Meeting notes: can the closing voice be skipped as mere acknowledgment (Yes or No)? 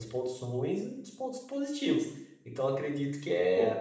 Yes